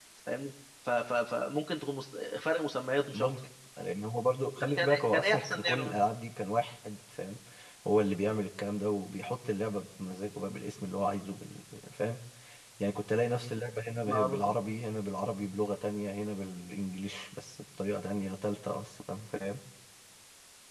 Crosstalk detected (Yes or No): Yes